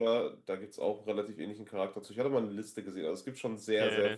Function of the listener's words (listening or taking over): taking over